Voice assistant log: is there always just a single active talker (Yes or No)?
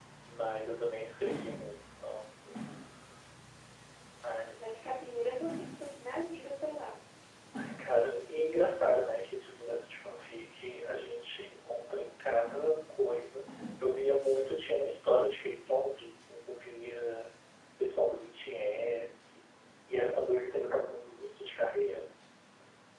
Yes